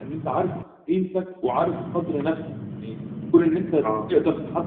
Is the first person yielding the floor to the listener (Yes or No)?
No